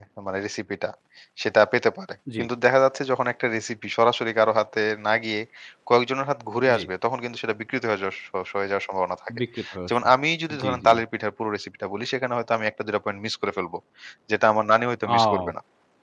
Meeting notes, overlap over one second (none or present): none